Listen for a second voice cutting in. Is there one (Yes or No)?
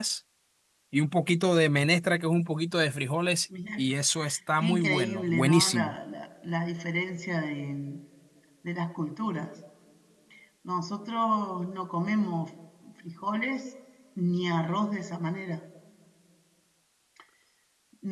Yes